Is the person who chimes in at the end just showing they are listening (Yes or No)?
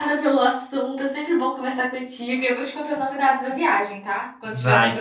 No